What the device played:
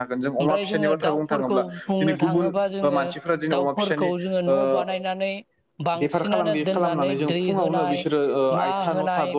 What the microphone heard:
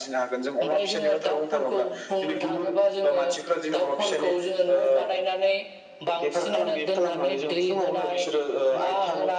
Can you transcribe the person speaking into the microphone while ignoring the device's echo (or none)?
none